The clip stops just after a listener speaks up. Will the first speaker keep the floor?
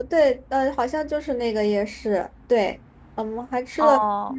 Yes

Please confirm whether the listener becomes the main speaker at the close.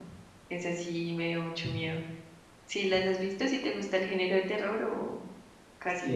Yes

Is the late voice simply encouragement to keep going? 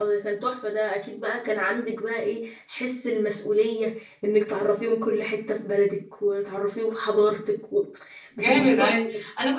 No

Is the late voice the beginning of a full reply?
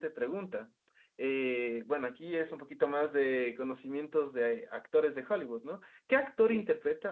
No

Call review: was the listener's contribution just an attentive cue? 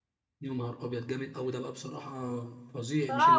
No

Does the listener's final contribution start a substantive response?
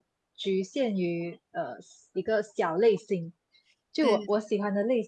No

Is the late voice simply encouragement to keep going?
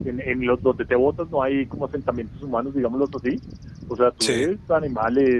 Yes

